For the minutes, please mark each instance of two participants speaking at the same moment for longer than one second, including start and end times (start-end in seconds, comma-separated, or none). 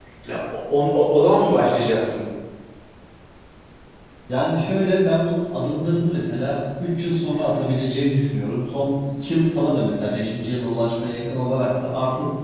none